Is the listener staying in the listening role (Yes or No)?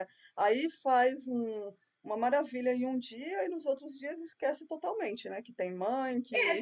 No